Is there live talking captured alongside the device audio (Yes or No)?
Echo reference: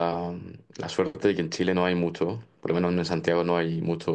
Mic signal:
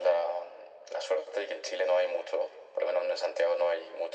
No